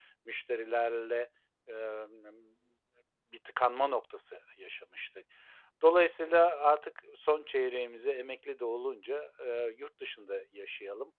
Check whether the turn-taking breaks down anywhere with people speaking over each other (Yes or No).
No